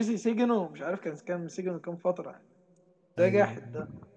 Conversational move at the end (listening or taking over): listening